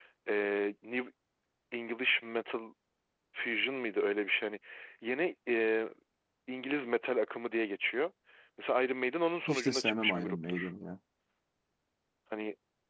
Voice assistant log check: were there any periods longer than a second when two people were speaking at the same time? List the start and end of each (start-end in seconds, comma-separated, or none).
9.5-10.7